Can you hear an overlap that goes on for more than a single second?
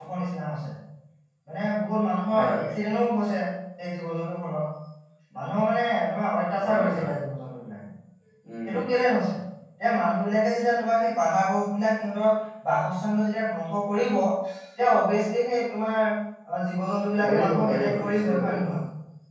Yes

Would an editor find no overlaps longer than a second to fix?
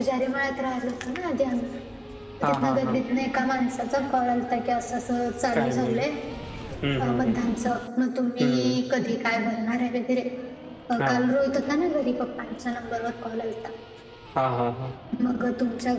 Yes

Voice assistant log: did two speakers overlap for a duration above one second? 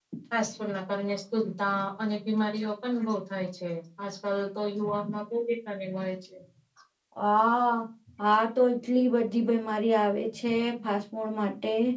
No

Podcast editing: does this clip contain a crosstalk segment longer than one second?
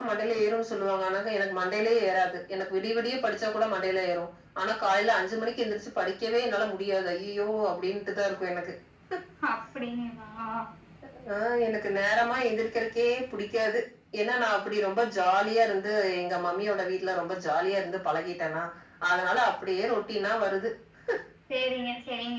No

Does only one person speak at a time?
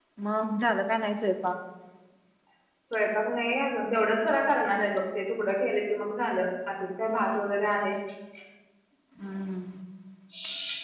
Yes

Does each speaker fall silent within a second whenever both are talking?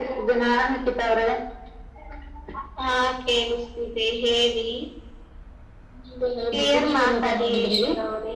No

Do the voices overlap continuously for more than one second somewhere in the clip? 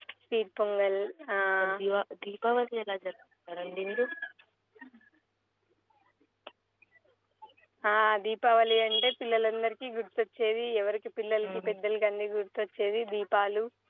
No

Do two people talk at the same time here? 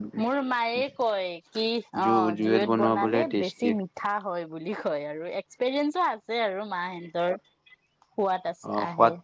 Yes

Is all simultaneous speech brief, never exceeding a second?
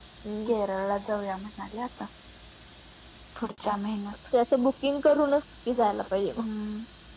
Yes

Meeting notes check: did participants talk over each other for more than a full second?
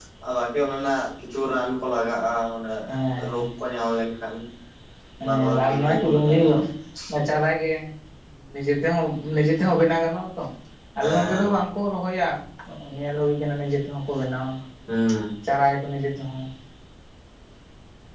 Yes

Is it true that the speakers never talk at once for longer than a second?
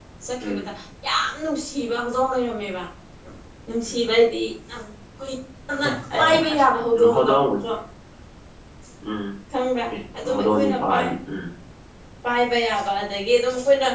No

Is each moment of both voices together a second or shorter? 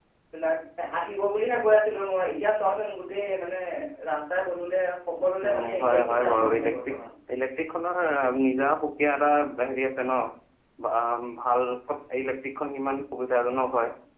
No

